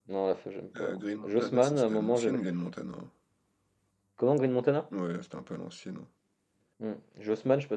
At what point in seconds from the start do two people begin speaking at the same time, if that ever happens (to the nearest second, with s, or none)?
1 s